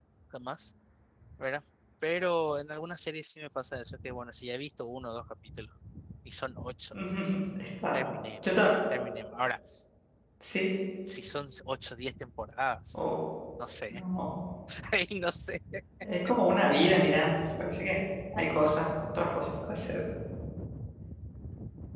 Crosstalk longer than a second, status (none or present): none